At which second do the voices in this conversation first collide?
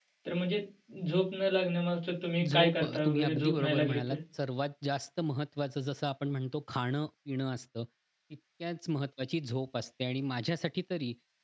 2.4 s

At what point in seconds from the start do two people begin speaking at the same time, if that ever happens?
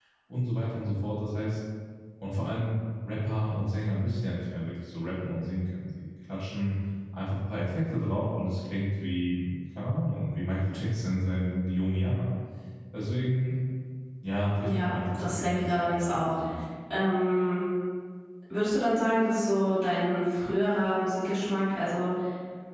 14.6 s

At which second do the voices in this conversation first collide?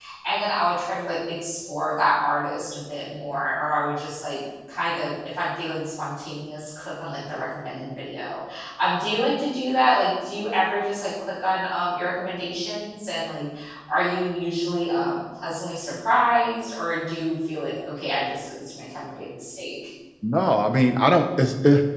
none

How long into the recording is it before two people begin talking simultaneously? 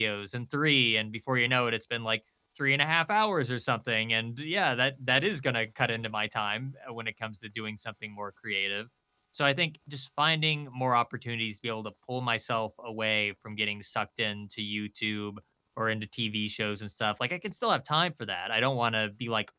none

